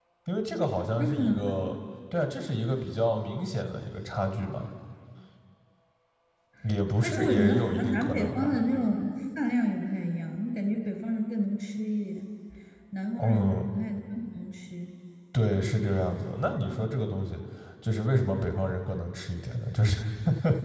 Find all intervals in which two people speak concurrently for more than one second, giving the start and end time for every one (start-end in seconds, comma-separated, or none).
7.0-8.6